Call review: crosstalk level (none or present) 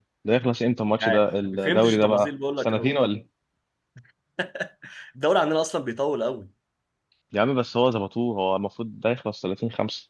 present